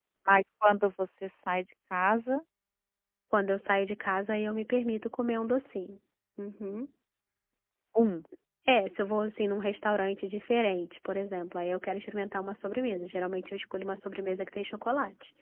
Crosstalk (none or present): none